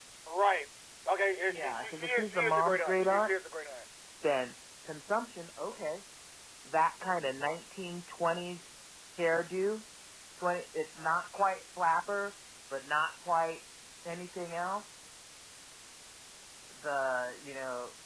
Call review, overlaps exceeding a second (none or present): present